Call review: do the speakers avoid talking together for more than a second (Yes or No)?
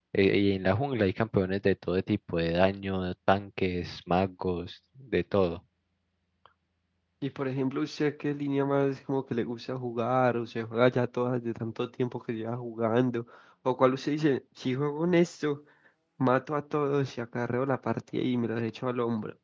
Yes